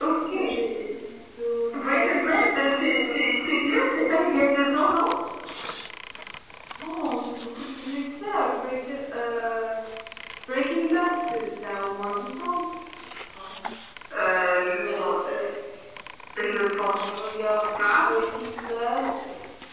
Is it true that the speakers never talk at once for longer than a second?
No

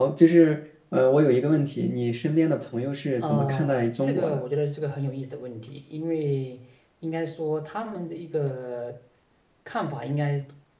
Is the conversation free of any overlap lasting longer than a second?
No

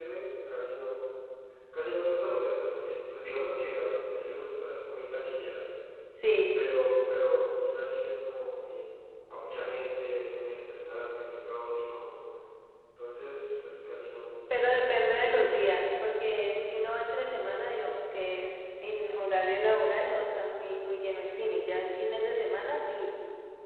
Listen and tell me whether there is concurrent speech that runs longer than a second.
Yes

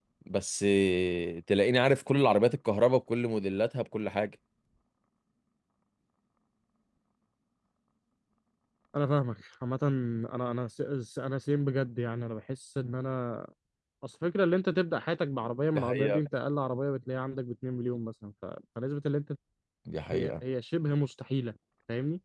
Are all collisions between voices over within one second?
Yes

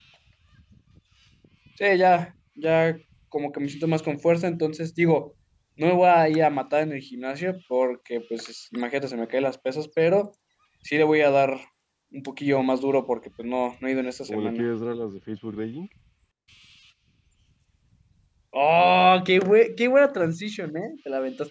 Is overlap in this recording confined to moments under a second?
Yes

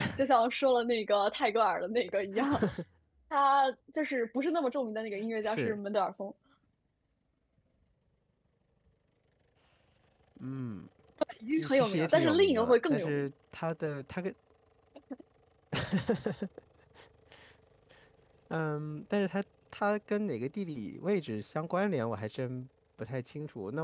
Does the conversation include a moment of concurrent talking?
Yes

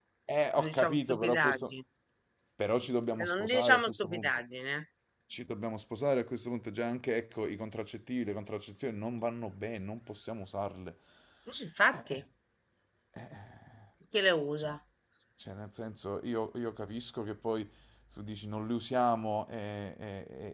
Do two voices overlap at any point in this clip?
Yes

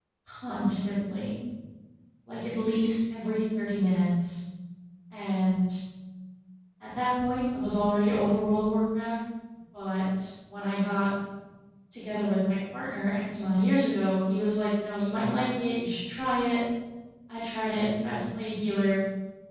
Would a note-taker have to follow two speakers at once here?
No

